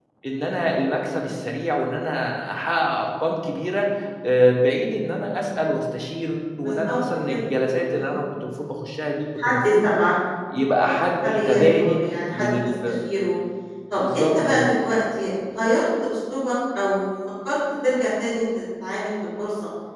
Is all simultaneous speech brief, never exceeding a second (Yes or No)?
No